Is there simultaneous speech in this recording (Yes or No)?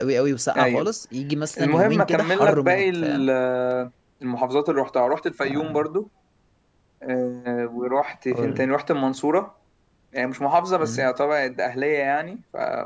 Yes